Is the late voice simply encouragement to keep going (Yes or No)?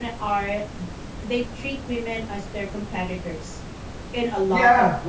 No